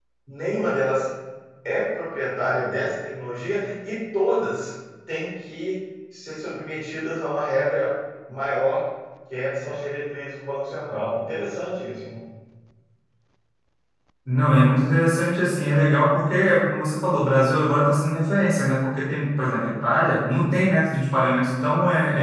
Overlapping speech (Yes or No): No